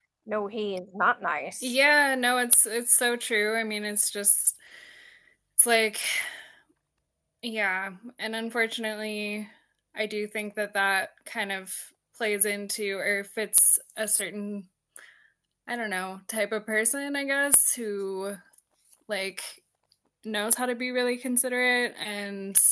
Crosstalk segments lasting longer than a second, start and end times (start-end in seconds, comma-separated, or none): none